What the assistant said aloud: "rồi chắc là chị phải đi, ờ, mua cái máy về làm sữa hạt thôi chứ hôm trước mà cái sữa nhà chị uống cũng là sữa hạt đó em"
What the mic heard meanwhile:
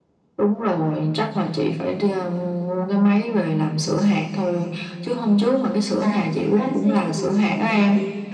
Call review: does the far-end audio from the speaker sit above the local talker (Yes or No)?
Yes